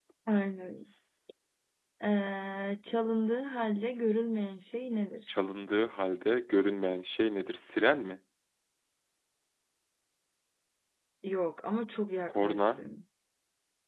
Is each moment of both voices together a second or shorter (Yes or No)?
Yes